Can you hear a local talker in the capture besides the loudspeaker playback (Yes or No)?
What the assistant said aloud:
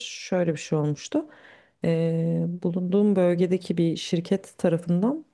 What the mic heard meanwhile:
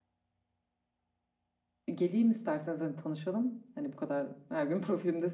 Yes